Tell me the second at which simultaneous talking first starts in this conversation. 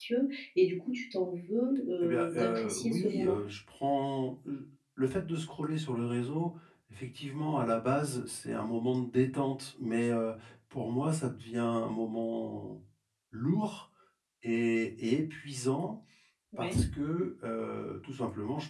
2.0 s

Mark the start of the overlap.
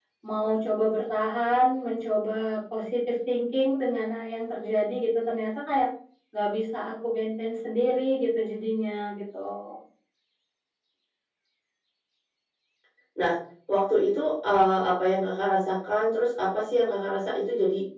none

